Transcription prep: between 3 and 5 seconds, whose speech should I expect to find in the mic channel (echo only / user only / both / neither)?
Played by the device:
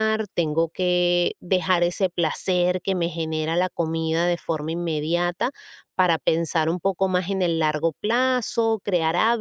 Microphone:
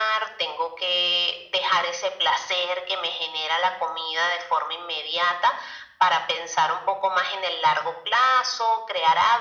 echo only